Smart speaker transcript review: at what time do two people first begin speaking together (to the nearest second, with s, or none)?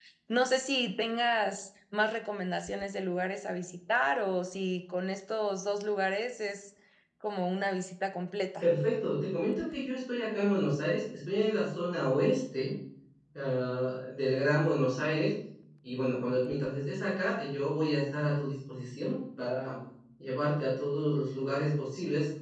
none